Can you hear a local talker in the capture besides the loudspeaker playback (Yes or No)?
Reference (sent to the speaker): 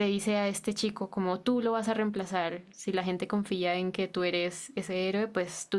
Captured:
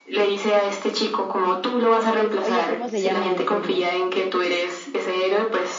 Yes